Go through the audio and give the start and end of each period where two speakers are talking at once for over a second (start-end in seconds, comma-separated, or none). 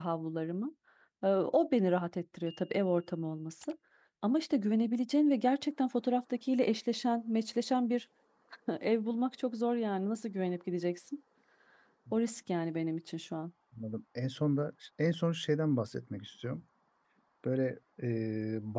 none